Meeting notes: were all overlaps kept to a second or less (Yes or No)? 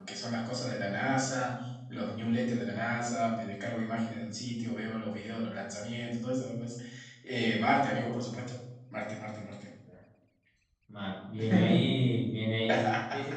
Yes